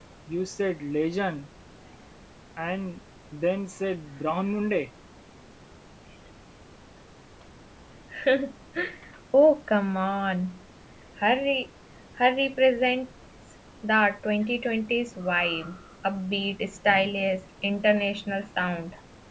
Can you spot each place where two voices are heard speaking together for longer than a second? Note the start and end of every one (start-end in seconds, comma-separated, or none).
none